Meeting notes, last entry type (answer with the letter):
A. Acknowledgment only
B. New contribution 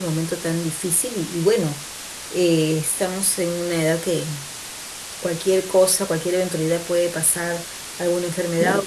A